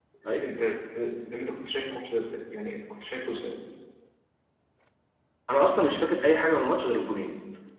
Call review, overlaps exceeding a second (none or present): none